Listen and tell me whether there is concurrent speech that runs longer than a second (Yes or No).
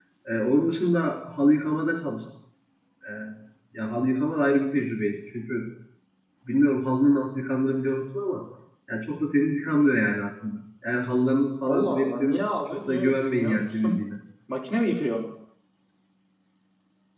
Yes